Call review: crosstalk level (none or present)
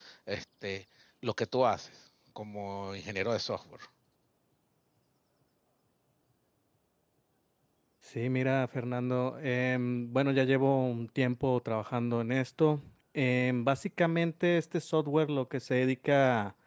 none